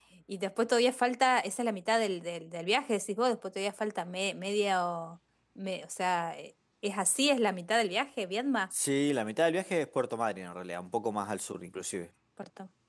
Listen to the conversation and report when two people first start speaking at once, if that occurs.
none

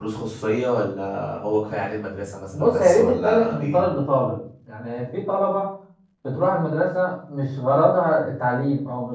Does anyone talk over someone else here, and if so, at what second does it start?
2.5 s

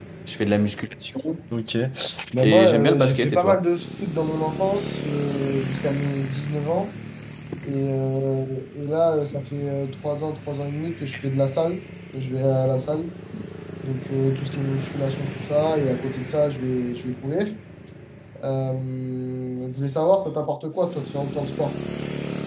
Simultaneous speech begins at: 2.4 s

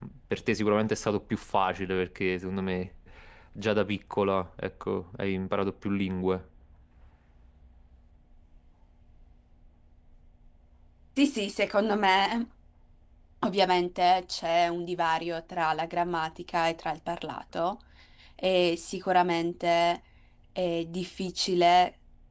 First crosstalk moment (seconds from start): none

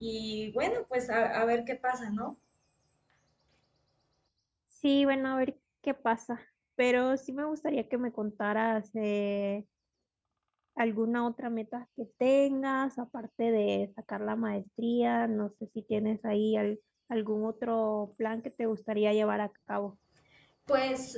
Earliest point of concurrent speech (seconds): none

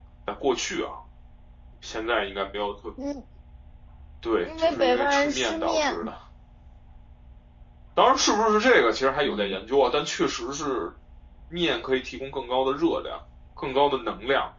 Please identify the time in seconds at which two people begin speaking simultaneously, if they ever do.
4.4 s

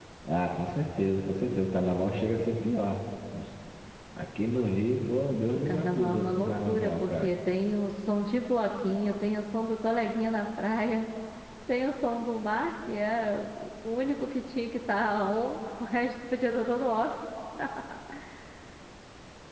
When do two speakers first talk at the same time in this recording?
5.5 s

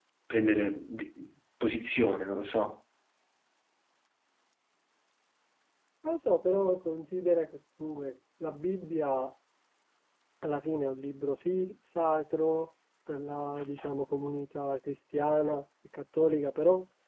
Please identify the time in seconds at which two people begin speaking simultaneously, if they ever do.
none

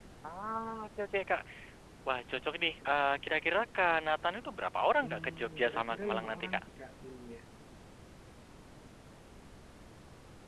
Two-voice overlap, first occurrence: 5.0 s

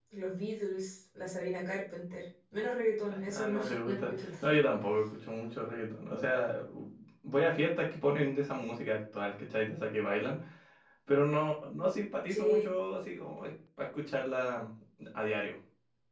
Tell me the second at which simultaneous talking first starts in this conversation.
3.1 s

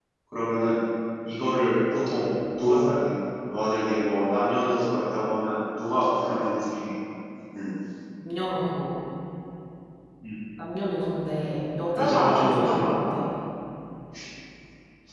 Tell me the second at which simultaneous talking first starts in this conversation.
12.0 s

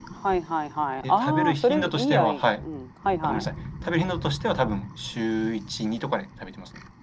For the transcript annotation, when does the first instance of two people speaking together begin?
1.0 s

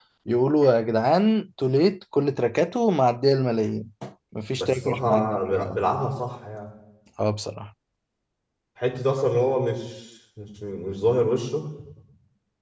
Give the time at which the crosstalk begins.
4.6 s

